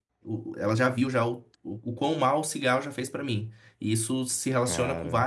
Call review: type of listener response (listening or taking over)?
listening